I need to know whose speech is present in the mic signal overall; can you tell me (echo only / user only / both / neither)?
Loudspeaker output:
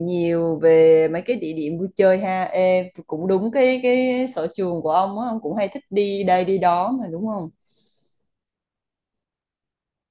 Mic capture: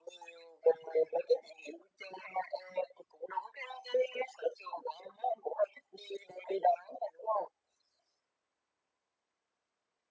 echo only